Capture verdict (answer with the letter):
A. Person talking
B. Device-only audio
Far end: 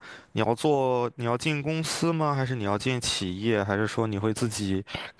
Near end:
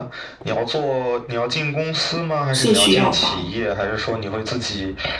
A